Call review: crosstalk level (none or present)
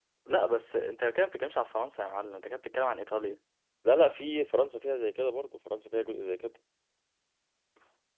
none